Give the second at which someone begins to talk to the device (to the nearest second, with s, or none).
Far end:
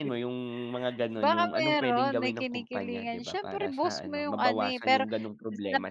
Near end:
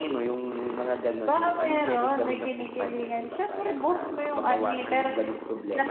none